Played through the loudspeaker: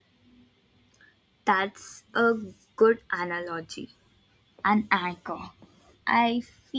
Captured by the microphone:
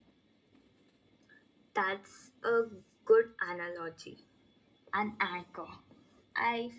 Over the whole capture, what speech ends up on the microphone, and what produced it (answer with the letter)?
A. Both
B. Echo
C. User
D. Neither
B